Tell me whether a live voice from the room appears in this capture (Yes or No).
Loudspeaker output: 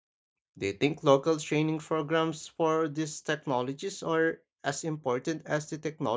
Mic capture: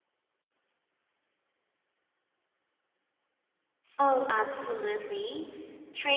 Yes